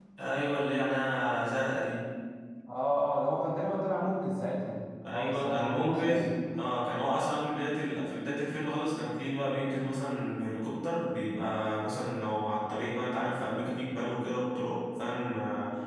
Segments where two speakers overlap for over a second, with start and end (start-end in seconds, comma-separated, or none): 5.1-6.3